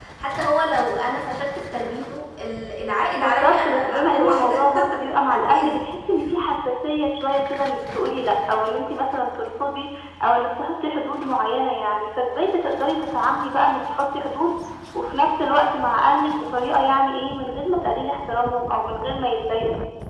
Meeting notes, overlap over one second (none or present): present